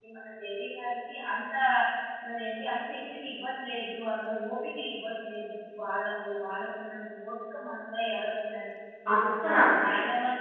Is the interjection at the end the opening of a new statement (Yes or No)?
No